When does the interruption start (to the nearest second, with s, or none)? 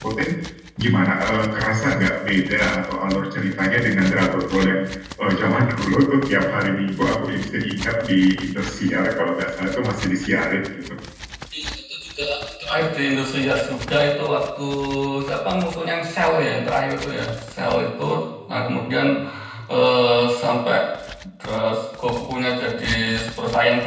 none